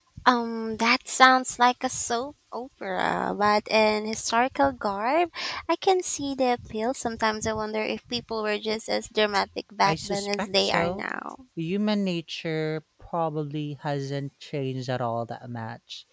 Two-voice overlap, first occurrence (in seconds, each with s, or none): 9.8 s